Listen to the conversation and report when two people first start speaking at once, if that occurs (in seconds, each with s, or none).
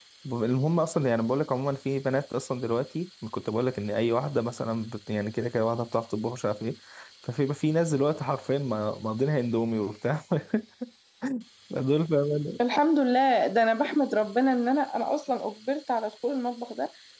none